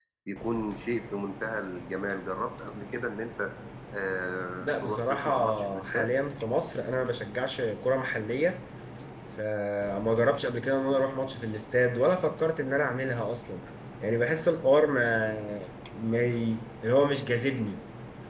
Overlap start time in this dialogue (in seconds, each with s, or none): 4.6 s